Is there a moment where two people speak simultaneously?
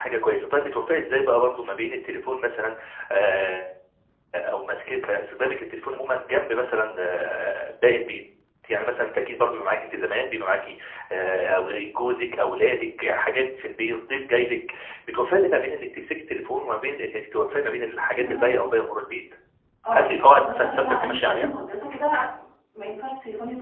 Yes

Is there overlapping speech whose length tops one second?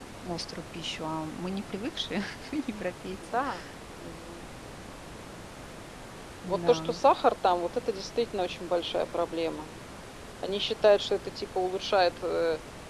No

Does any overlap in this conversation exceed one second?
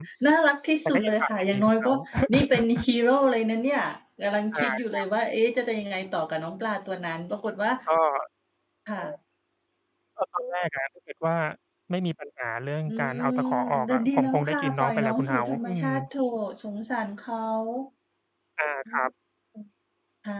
Yes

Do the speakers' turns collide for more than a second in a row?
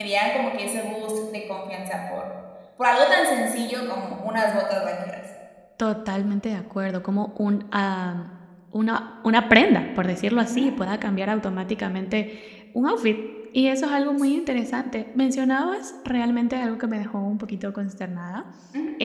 No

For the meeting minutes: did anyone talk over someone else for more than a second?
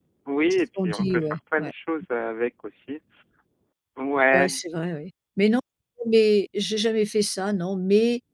Yes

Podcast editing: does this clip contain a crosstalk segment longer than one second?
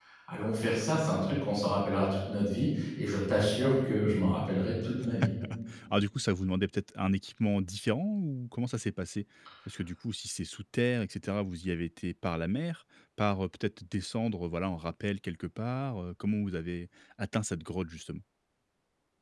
No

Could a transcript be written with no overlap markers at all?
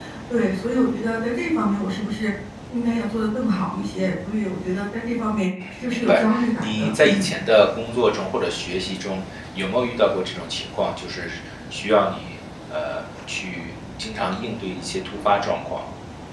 No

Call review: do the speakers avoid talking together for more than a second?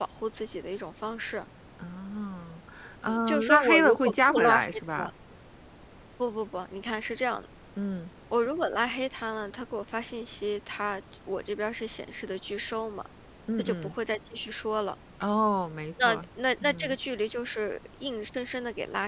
No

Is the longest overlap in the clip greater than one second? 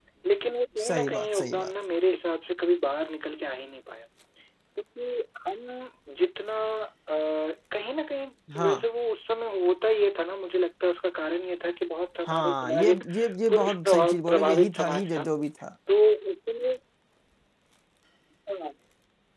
Yes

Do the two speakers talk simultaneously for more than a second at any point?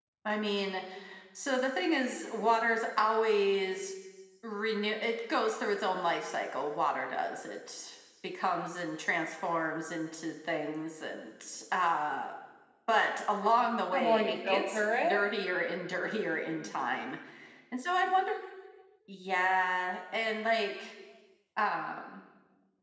Yes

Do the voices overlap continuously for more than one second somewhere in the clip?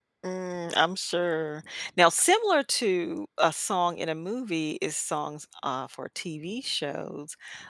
No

